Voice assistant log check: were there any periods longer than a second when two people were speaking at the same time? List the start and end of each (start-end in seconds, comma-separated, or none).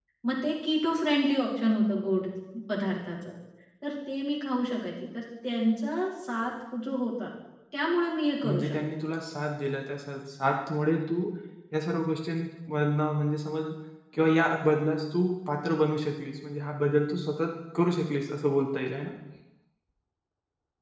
none